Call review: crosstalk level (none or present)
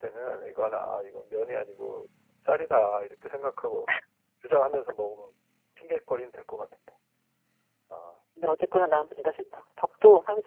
none